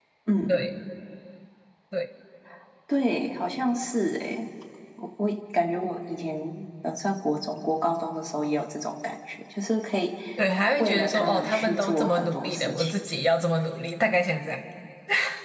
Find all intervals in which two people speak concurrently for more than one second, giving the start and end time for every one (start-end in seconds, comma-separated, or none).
10.8-12.9